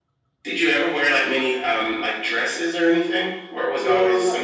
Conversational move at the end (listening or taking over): taking over